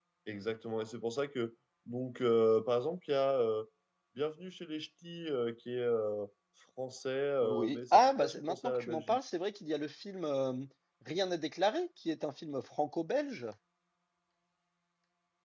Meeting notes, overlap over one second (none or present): present